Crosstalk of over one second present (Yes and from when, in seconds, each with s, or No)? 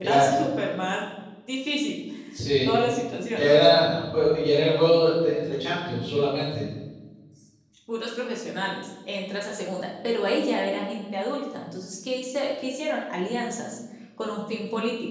No